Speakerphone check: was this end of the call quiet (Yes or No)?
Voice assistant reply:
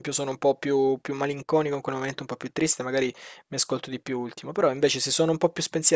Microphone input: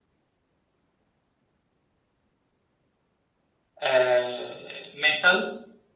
No